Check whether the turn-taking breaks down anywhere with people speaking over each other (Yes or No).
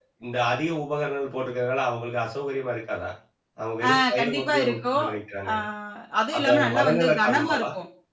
Yes